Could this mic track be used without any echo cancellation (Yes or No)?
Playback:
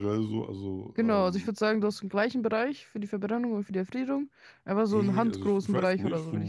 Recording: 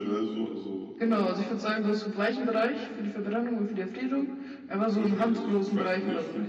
No